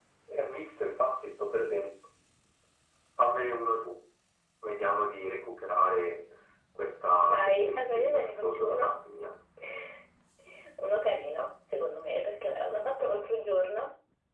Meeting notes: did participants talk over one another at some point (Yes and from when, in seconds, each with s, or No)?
Yes, from 7.3 s